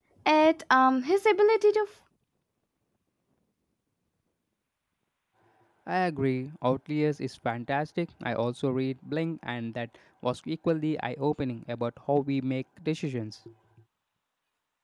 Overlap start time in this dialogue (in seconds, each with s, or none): none